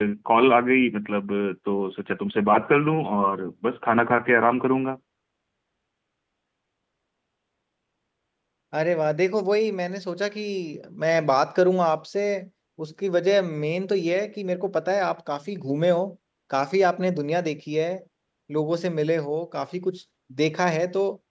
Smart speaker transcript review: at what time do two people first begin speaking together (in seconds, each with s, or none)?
none